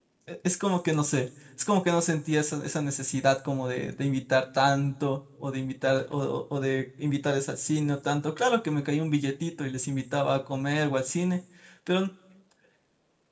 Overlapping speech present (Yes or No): No